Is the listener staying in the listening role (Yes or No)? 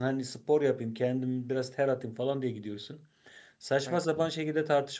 Yes